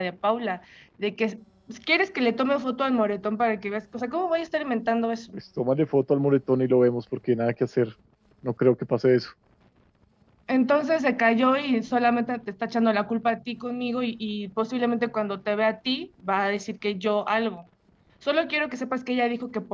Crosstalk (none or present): none